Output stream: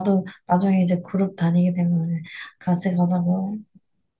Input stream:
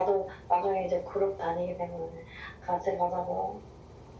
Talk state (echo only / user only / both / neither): echo only